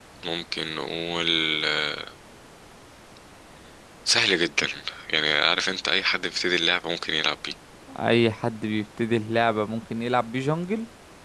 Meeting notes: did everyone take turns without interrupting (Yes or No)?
Yes